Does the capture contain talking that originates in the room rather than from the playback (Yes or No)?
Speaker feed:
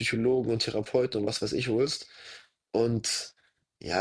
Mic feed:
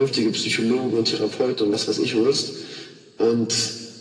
No